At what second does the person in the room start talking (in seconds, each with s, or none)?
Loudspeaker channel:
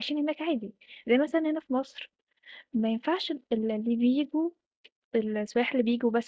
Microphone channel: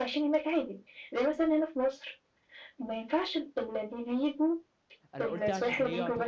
5.1 s